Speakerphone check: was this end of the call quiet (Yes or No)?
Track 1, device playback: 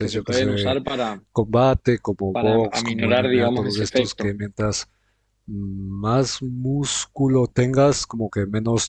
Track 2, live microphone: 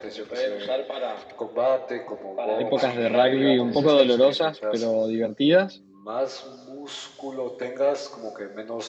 No